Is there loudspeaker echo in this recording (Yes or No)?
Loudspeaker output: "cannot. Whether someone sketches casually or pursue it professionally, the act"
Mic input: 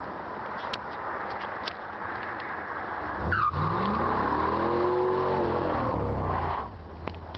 No